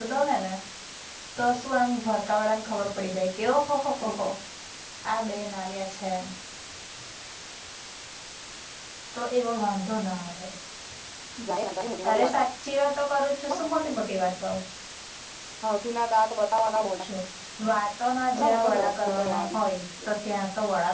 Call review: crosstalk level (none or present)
present